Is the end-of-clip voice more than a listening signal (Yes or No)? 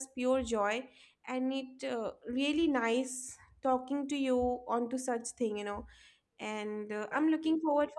No